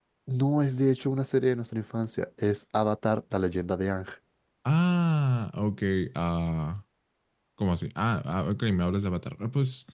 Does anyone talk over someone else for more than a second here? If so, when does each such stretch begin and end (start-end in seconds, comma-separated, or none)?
none